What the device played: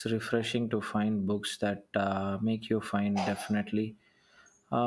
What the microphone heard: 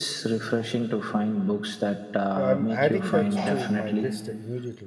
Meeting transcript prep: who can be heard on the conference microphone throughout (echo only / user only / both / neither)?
both